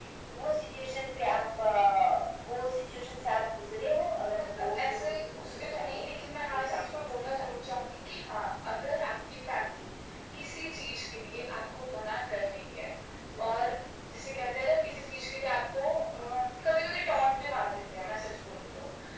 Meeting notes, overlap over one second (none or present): present